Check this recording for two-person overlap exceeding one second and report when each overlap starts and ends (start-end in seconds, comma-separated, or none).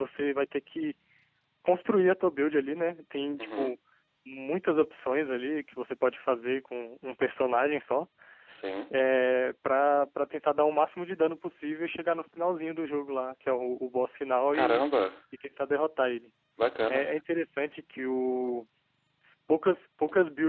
none